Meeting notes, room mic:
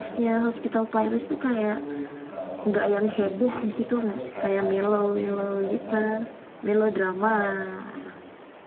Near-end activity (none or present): present